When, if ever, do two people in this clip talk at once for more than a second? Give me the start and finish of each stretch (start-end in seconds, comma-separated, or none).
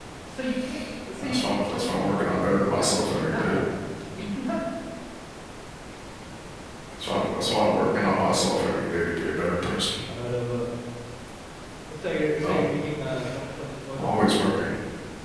1.2-3.6